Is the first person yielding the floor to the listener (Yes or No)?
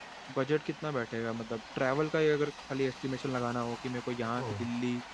No